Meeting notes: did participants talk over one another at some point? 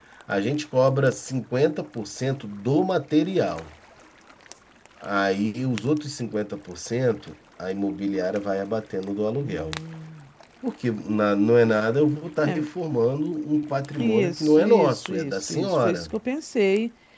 Yes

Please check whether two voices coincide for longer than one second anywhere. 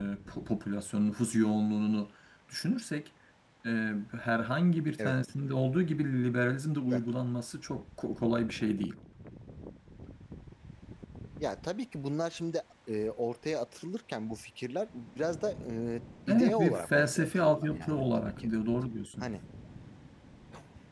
Yes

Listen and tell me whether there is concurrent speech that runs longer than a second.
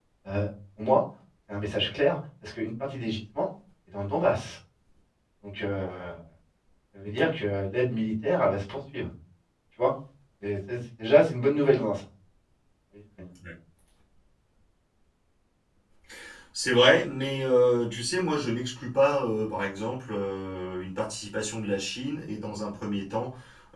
No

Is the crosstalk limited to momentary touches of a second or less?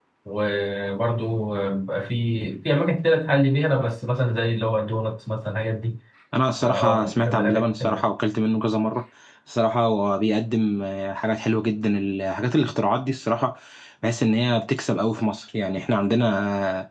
No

